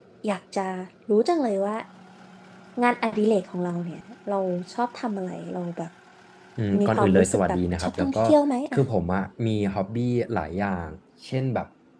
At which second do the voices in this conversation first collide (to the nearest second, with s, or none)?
7 s